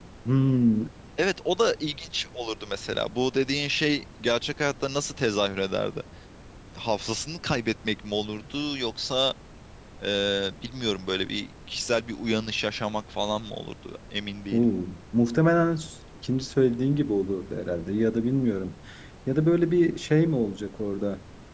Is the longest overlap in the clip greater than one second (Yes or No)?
No